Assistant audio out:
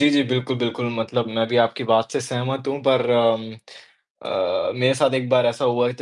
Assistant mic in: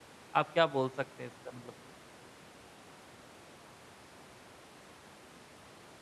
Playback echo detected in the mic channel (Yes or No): No